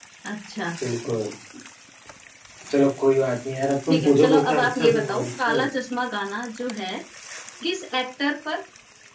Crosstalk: present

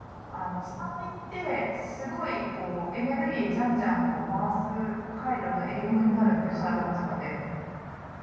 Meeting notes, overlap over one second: present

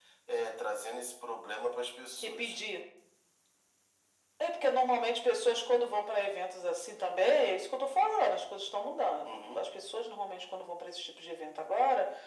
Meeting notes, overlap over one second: none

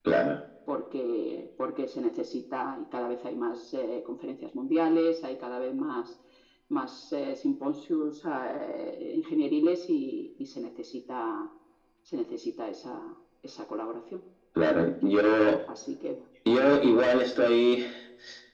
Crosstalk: none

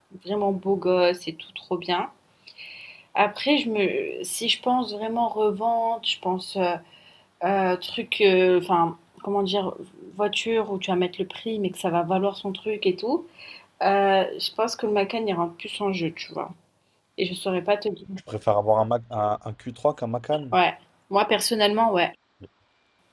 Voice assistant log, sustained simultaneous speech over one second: none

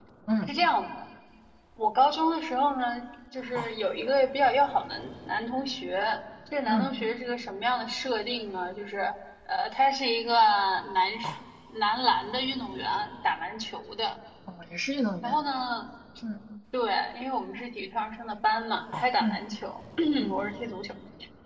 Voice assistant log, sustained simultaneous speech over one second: none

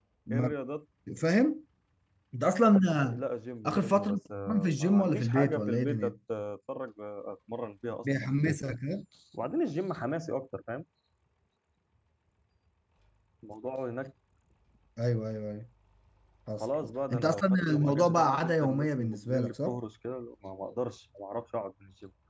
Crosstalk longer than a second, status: present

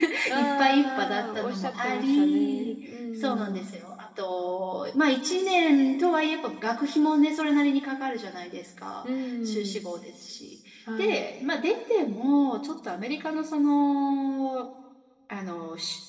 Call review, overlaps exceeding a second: present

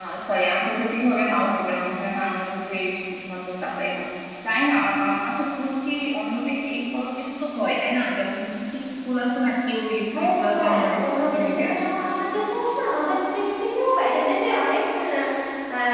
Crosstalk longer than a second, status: present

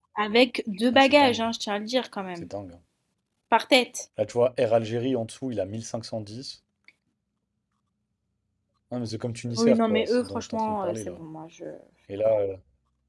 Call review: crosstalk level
present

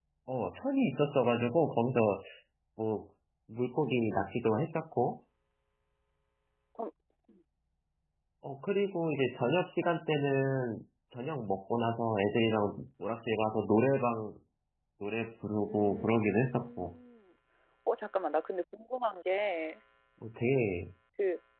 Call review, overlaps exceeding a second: present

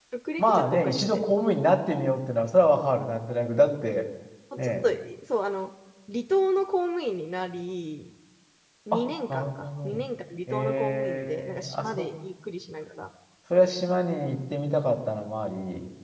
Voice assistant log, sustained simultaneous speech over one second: present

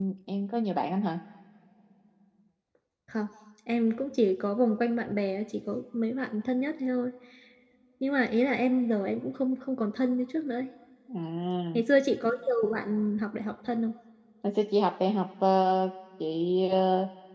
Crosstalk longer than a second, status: none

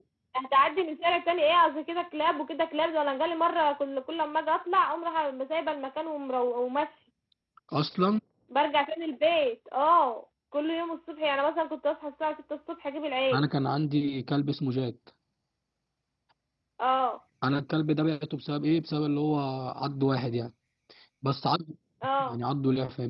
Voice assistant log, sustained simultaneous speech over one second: none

